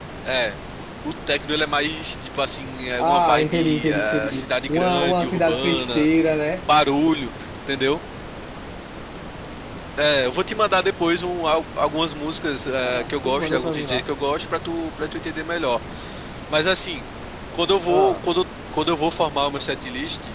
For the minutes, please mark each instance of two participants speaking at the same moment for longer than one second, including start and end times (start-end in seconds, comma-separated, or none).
3.0-6.1, 12.8-14.0